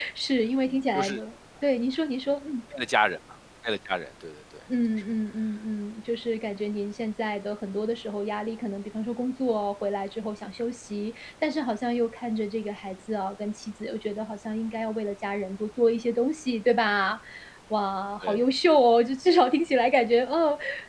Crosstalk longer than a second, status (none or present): none